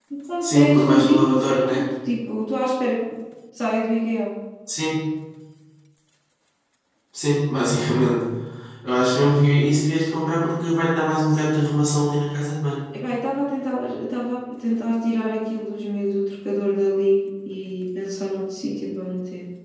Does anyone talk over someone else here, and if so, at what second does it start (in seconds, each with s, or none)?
0.5 s